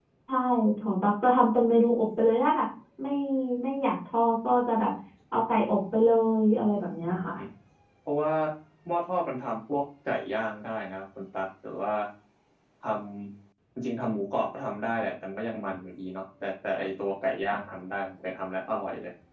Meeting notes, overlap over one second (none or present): none